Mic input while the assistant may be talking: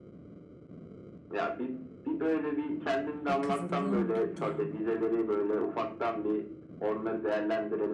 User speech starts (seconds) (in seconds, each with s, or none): 3.2 s